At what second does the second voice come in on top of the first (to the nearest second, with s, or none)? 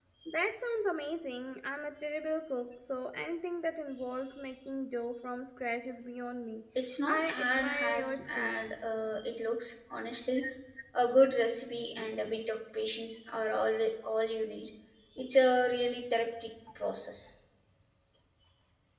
7 s